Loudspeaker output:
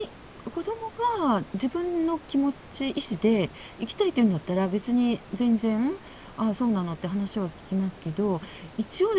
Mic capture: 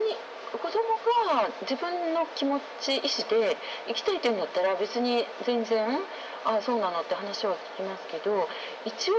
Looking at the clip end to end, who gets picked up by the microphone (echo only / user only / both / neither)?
echo only